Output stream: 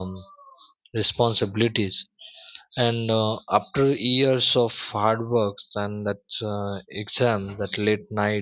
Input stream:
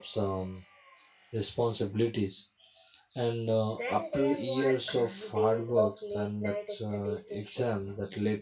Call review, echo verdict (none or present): present